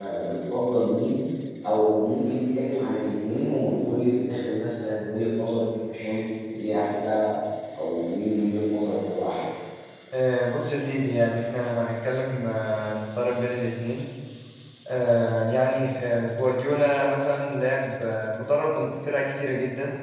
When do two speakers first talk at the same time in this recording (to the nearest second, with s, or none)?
none